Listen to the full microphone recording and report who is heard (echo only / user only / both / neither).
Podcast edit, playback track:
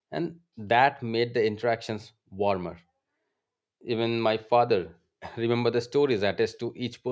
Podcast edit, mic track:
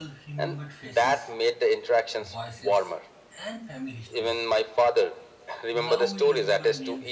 both